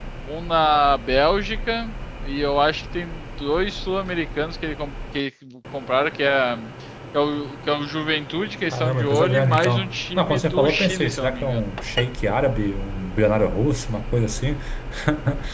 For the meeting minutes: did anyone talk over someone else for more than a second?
Yes, from 8.7 s

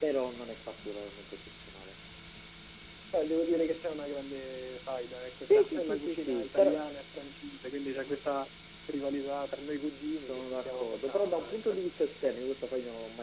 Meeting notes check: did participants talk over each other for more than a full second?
Yes, from 5.5 s

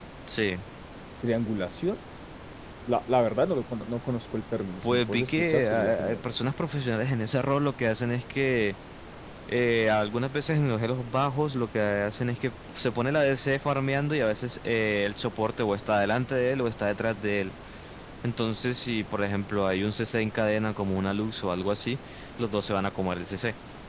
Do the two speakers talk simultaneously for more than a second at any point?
Yes, from 4.8 s

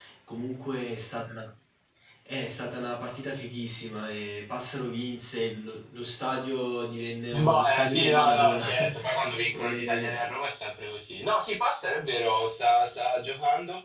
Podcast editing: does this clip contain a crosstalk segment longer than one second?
Yes, from 7.3 s

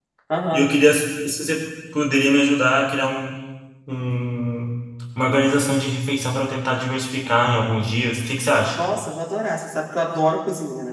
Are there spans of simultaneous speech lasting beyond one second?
No

